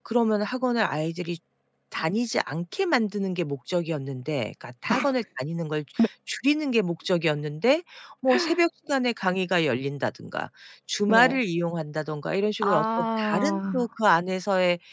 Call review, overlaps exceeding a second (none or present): present